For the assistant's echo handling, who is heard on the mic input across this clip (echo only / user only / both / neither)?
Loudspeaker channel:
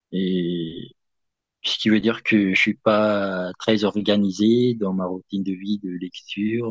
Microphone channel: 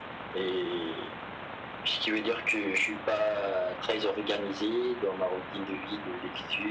echo only